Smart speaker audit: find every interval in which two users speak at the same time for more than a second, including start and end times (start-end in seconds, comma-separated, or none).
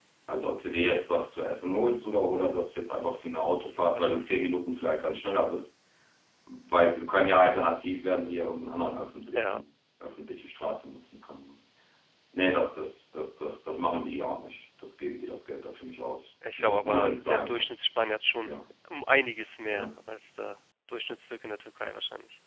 16.6-17.8